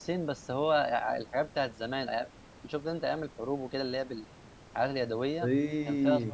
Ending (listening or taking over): taking over